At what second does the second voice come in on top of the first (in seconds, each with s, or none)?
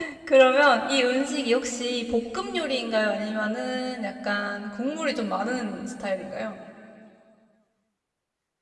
none